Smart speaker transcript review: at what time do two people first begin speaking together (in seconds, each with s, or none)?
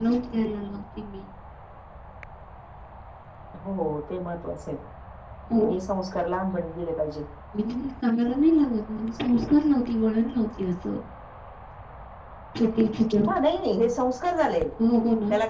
none